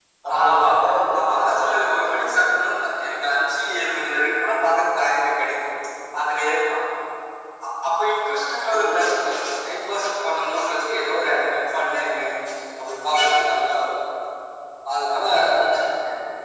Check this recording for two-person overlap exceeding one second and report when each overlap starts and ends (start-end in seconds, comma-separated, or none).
1.2-2.8